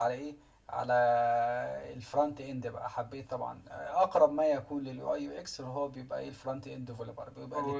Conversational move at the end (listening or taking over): taking over